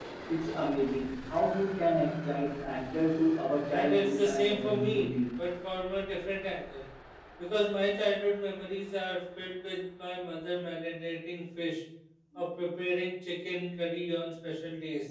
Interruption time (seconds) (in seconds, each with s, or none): 3.7 s